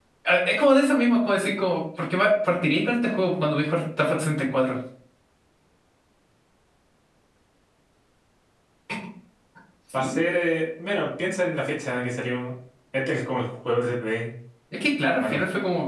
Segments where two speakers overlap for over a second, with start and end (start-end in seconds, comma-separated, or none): none